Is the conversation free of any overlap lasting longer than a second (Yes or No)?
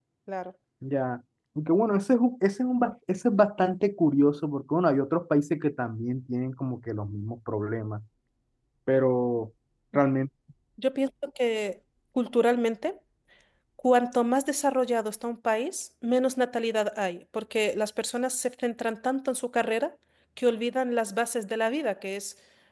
Yes